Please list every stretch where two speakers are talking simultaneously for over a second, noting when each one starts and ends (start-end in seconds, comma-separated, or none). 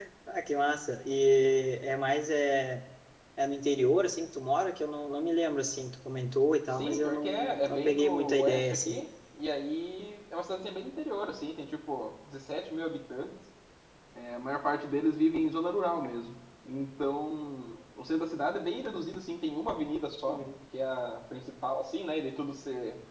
6.7-9.0